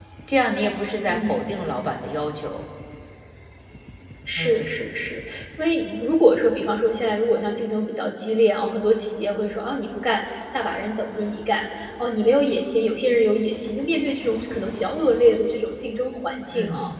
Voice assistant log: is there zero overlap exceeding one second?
Yes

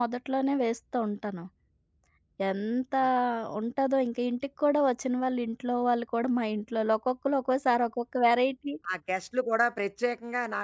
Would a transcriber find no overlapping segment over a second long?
Yes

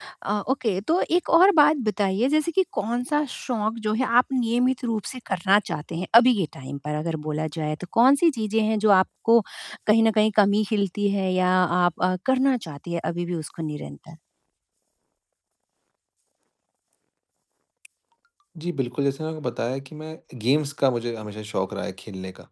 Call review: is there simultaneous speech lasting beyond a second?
No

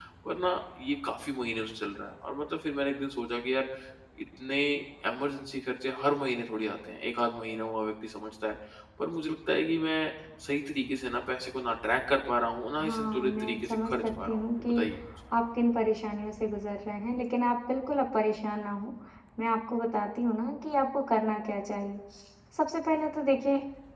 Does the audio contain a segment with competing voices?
Yes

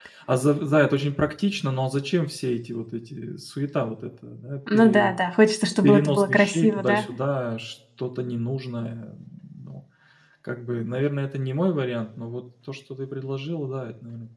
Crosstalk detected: Yes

